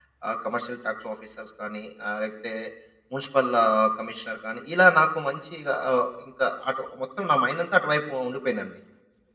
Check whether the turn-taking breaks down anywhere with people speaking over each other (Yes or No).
No